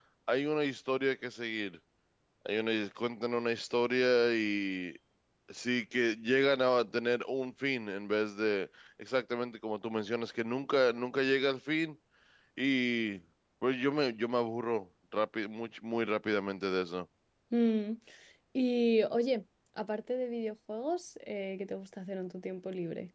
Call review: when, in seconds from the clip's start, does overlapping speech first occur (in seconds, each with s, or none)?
none